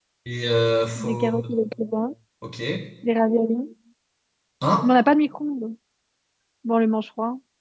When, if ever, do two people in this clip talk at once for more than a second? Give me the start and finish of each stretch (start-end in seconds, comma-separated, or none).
none